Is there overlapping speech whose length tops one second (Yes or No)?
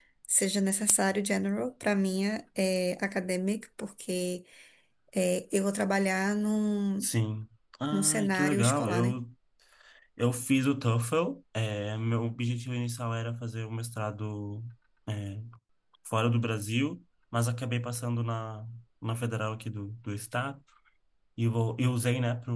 Yes